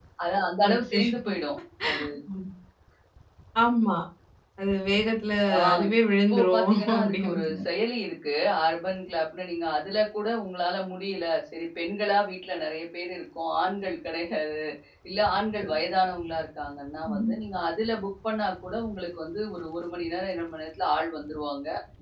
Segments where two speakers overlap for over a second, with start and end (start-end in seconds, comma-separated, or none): 6.3-7.6